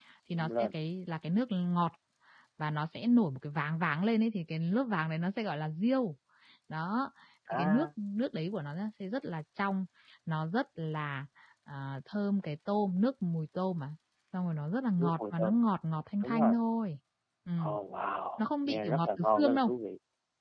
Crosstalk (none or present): present